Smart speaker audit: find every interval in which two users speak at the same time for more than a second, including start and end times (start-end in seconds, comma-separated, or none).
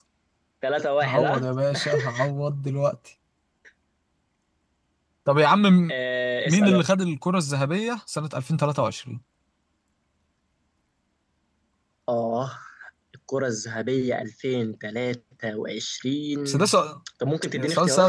none